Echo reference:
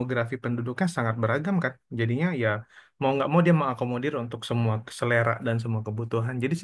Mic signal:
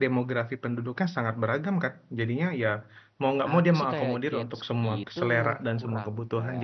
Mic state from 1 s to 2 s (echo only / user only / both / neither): echo only